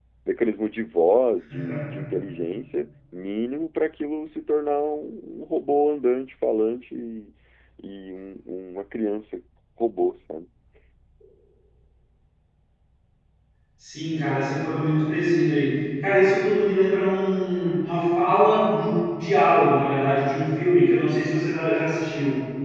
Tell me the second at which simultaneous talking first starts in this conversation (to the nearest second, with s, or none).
none